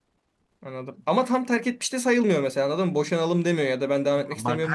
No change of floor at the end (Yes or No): No